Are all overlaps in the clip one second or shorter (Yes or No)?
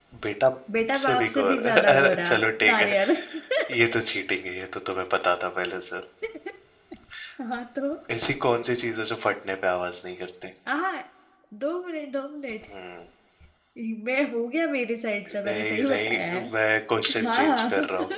No